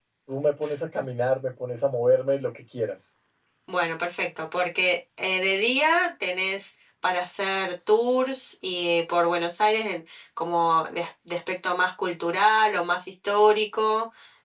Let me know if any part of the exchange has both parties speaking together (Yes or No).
No